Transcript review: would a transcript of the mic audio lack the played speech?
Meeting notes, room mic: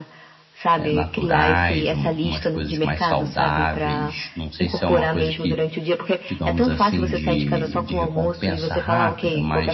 No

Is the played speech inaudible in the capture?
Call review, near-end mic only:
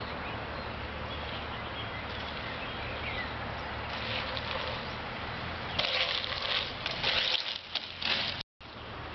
Yes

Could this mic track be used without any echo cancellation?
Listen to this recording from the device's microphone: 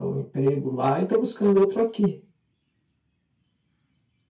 Yes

